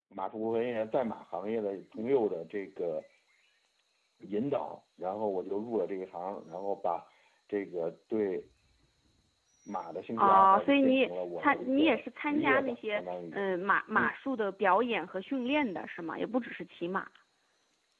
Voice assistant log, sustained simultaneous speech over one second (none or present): present